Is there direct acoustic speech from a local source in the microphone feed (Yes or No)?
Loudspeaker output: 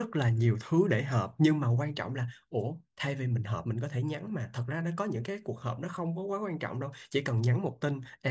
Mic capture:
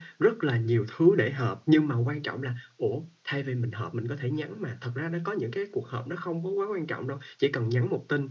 No